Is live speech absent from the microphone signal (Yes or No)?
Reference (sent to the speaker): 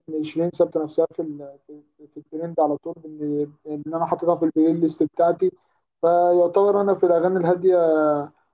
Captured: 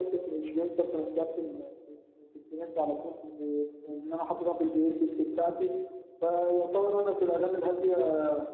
Yes